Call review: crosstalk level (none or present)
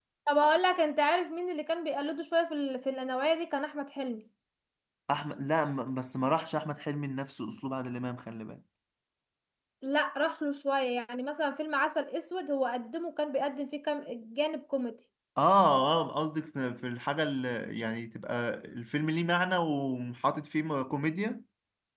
none